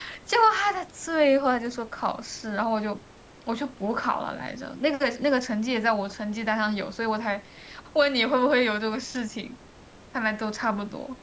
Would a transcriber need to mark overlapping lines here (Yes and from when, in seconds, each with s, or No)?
No